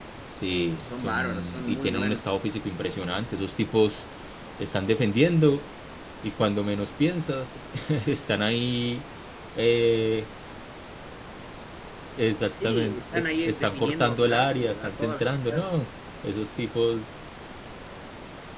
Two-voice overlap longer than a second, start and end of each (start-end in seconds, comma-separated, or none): 0.8-2.4, 12.5-15.7